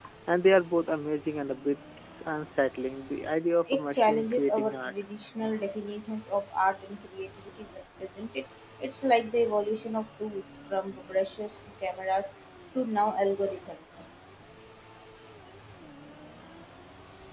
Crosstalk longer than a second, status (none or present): present